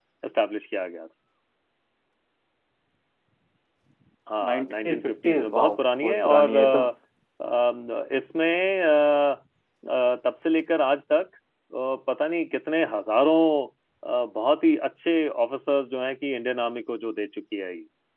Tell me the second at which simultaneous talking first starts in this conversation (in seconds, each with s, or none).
4.5 s